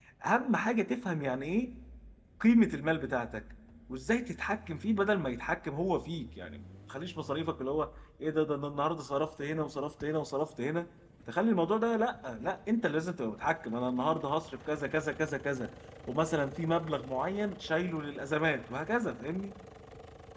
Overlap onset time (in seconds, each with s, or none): none